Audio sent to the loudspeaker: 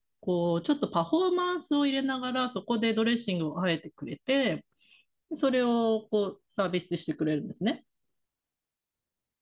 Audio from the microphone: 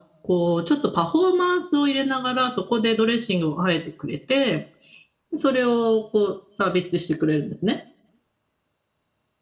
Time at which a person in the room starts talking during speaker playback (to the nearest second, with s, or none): none